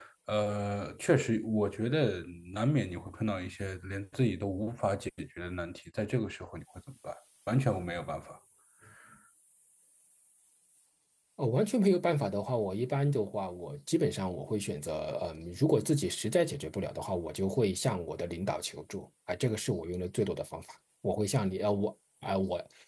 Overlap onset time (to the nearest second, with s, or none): none